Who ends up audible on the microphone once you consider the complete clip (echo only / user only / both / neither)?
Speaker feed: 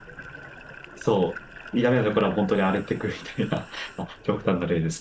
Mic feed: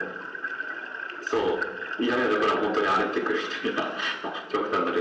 echo only